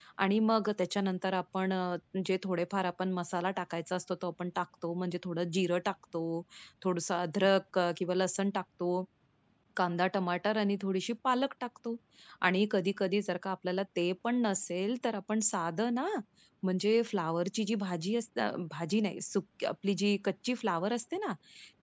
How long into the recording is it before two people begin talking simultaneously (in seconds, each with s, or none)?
none